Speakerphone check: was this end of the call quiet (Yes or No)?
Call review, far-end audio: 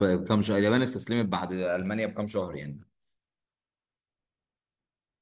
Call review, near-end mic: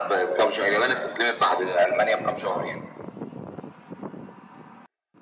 Yes